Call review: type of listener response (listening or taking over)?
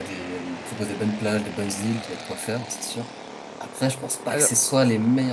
listening